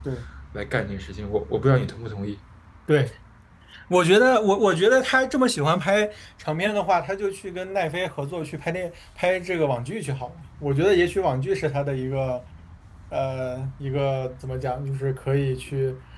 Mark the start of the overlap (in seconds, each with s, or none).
none